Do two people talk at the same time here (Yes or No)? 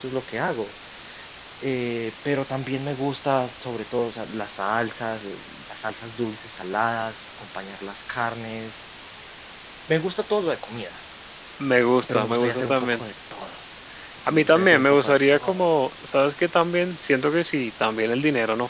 Yes